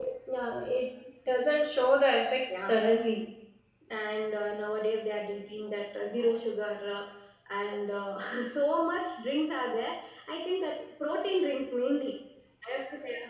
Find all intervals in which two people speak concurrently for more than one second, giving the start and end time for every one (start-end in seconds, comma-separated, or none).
none